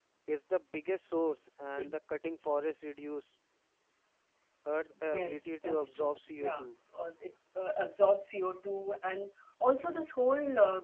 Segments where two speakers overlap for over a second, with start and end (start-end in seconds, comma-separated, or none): 5.1-6.7